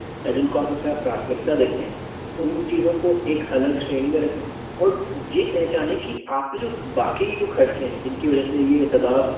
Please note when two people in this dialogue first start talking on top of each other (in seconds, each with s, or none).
none